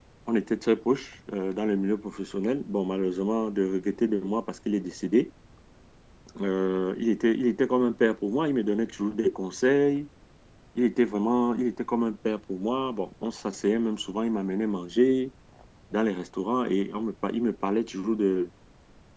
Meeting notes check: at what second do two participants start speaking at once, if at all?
none

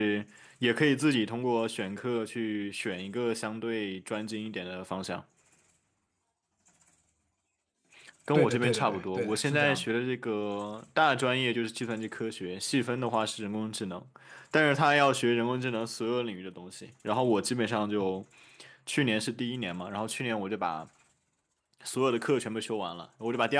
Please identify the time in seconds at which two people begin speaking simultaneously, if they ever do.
8 s

